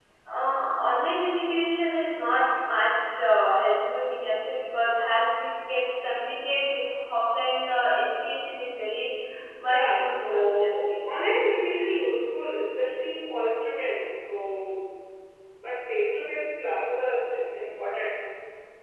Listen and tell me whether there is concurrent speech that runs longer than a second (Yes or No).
Yes